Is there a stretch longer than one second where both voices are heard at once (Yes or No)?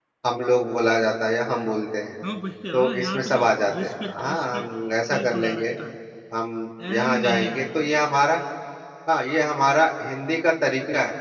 Yes